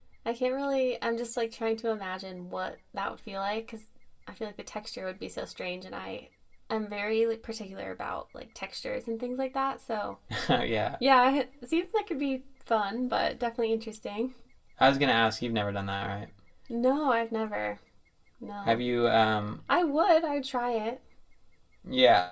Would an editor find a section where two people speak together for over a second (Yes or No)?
No